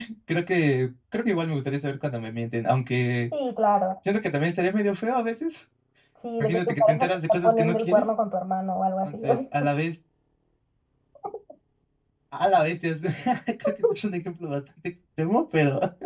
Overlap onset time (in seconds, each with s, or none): 6.4 s